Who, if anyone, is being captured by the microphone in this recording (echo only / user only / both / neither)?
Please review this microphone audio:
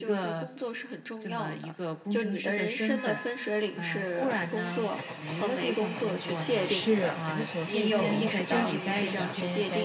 both